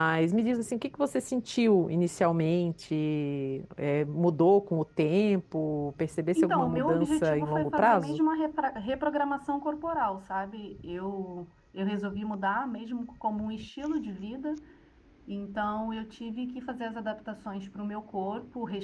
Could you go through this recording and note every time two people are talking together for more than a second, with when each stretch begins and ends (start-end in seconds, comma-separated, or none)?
6.4-8.2